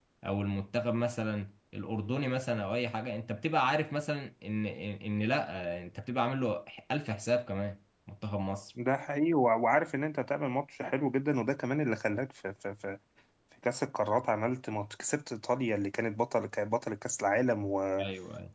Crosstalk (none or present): none